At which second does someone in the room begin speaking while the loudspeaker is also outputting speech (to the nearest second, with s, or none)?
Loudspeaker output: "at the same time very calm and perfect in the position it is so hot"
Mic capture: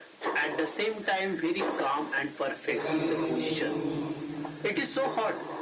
3 s